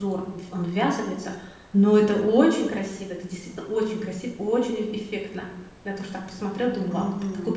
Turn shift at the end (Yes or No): Yes